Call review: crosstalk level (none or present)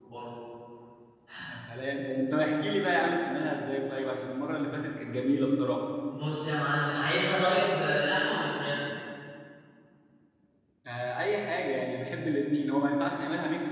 none